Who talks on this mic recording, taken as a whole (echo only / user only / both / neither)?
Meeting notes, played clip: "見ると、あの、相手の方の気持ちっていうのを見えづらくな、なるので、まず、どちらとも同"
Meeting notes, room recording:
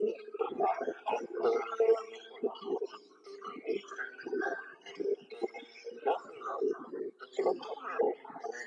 echo only